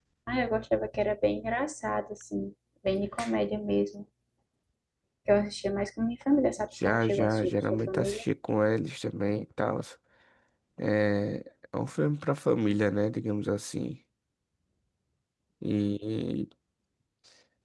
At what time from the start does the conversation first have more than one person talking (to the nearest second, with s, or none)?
7 s